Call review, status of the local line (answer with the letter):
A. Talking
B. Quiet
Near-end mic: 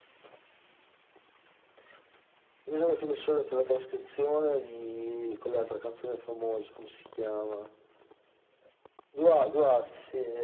B